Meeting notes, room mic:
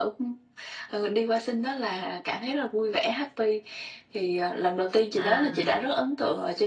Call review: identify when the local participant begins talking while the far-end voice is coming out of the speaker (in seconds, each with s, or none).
5.2 s